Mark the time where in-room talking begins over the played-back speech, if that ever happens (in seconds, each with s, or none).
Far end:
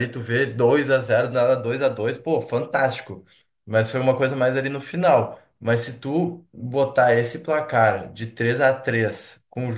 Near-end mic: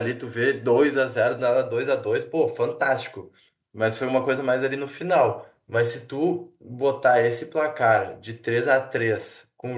none